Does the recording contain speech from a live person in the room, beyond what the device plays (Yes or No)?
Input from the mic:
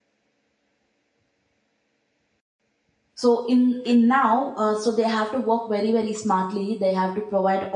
Yes